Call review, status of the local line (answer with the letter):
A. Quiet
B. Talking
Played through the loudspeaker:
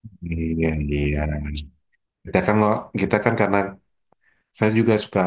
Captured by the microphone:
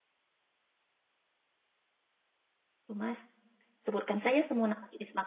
B